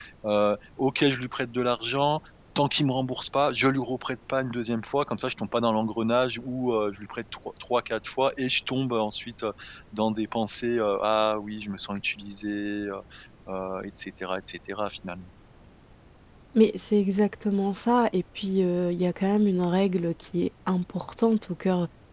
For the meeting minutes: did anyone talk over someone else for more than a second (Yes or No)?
No